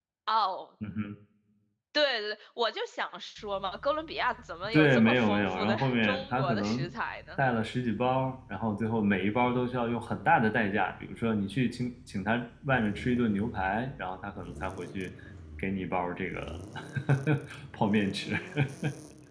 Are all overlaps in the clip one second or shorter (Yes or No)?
No